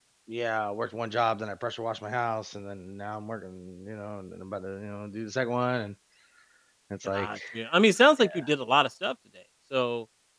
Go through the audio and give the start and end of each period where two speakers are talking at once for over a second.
none

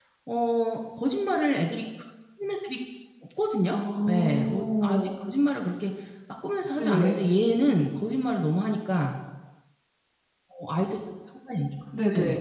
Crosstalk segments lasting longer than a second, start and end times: 3.7-5.0

